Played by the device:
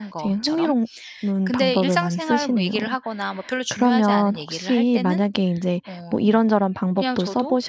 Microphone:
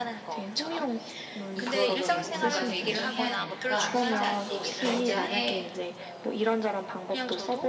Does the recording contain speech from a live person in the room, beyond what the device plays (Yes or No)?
Yes